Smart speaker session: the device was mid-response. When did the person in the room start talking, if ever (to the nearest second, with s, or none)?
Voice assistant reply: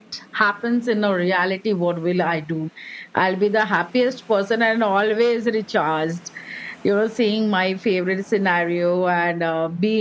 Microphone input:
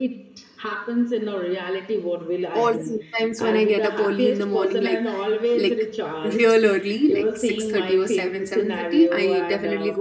3 s